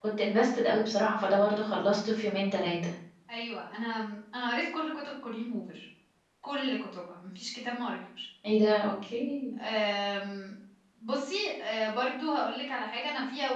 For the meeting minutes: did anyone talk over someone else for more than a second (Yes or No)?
No